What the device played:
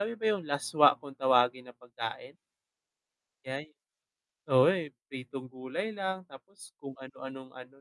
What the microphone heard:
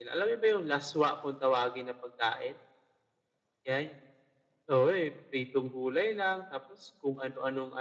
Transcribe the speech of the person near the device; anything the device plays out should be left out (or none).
none